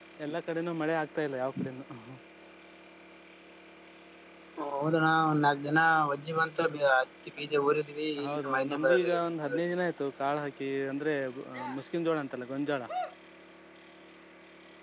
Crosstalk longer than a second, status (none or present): present